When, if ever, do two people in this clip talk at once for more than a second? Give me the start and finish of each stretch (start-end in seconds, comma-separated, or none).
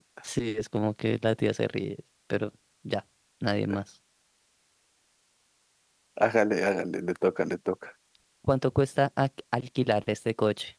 none